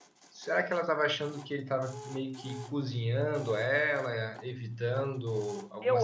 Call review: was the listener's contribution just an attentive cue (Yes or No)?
No